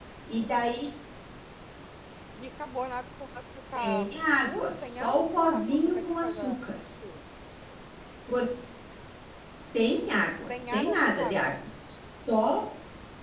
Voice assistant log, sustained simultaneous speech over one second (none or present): present